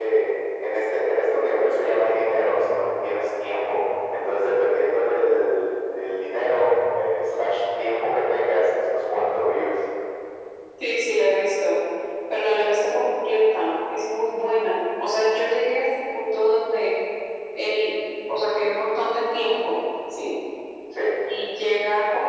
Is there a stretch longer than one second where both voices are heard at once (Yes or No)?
No